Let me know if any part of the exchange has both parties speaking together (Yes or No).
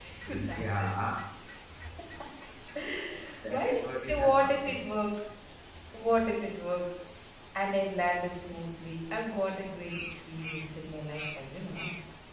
Yes